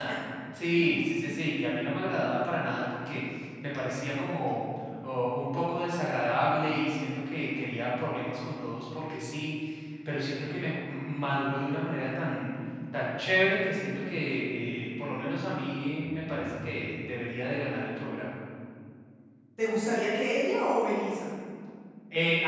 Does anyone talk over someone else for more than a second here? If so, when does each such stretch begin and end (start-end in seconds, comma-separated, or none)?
none